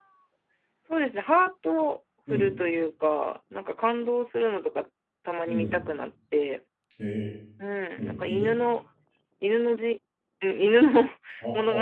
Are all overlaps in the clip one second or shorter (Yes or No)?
Yes